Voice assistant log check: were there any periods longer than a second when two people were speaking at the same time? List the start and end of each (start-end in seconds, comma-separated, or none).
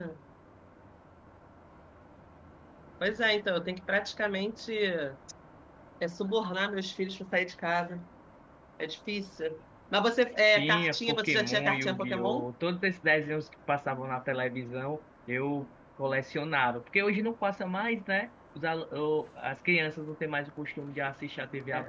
10.5-12.5